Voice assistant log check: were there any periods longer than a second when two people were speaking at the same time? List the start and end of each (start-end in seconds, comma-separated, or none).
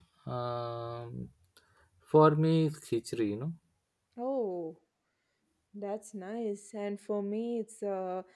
none